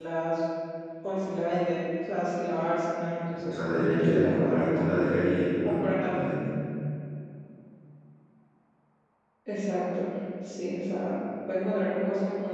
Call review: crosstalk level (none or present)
present